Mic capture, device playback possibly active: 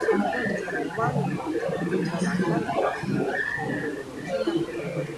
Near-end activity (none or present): present